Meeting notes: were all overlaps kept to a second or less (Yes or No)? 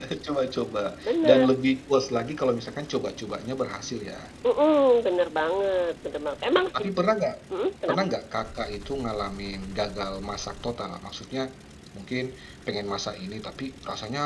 Yes